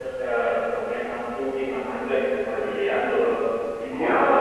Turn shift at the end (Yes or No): Yes